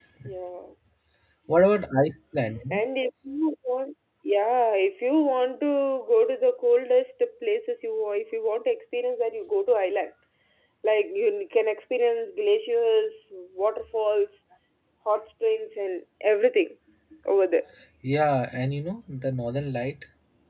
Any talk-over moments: No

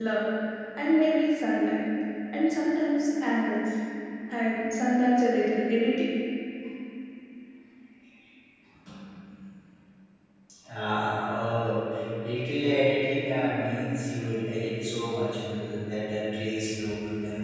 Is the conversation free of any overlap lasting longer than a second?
Yes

